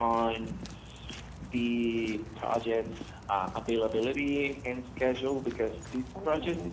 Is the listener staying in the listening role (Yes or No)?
Yes